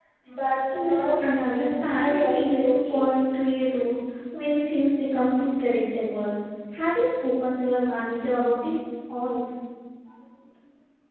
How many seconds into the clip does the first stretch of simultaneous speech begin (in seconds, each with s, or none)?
0.7 s